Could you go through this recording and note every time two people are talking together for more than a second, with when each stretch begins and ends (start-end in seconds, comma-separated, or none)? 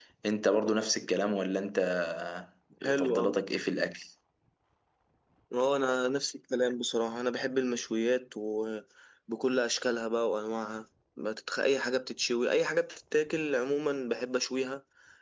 none